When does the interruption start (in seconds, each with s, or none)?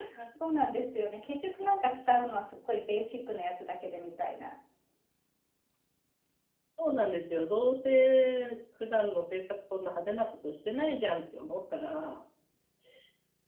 none